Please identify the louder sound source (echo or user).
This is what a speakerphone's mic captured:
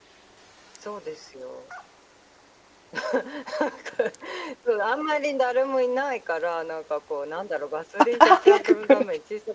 user